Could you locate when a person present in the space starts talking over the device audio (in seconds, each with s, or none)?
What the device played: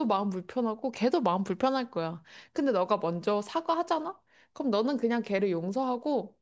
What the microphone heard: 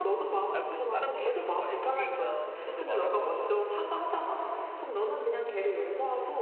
0.5 s